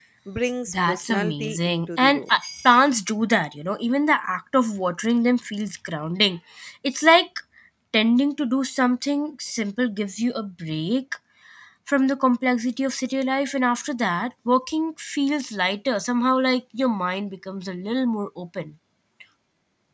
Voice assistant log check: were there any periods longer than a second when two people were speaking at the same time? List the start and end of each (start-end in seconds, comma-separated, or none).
0.7-2.2